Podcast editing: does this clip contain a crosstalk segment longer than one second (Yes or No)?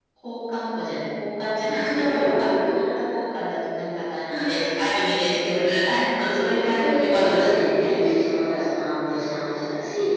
Yes